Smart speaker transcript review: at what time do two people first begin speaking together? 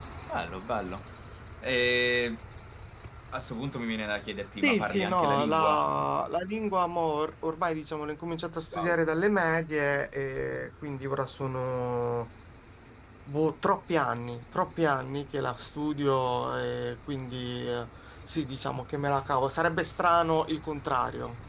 4.6 s

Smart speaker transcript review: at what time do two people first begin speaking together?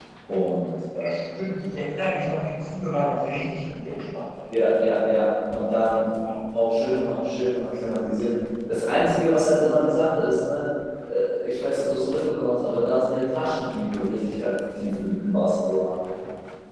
none

